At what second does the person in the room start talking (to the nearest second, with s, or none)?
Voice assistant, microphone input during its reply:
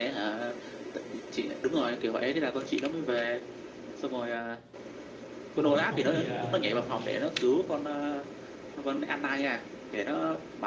6 s